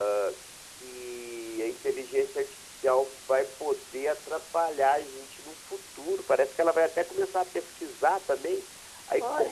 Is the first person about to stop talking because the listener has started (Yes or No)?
No